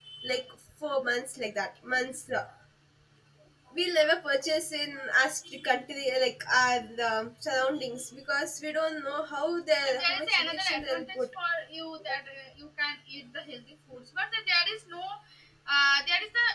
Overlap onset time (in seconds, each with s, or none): 9.8 s